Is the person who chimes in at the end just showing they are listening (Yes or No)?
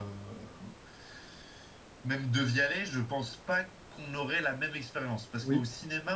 Yes